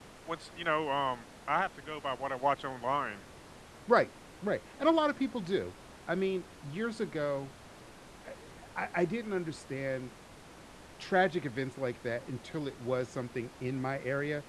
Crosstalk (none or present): none